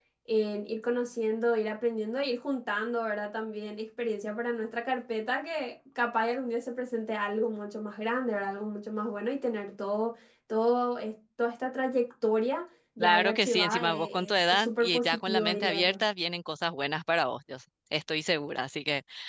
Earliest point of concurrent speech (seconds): 13.0 s

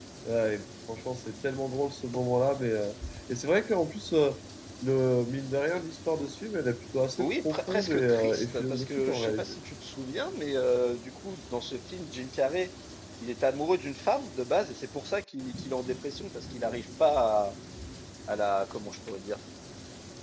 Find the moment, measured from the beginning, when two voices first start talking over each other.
7.2 s

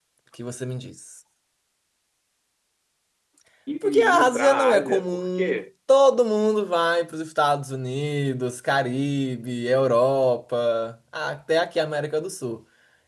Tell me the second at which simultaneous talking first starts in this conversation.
3.8 s

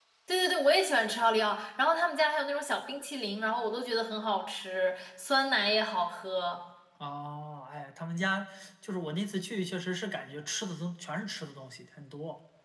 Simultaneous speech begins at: none

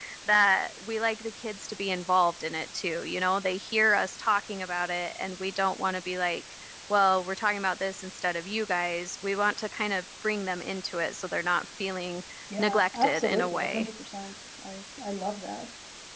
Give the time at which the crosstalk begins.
12.5 s

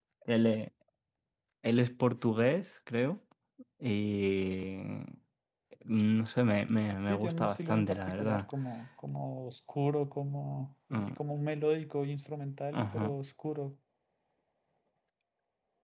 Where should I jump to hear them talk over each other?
7.1 s

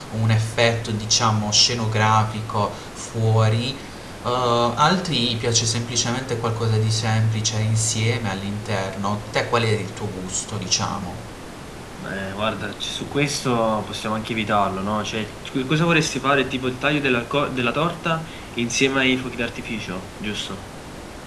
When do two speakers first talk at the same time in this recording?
none

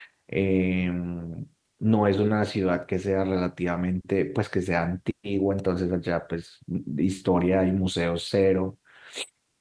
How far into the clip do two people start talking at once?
none

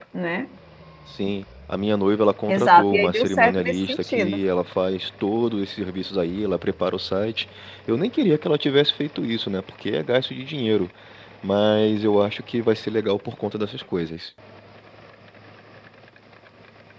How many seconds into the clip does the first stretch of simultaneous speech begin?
2.5 s

